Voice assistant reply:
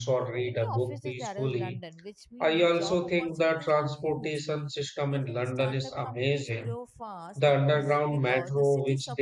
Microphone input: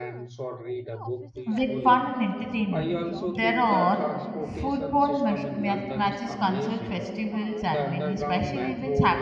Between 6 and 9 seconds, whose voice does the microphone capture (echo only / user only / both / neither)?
both